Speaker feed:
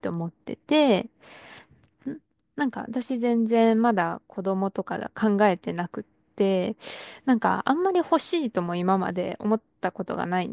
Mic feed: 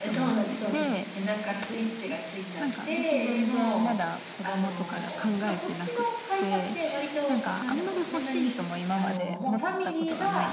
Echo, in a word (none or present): present